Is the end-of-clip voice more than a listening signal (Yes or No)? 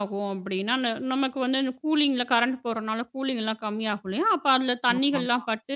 No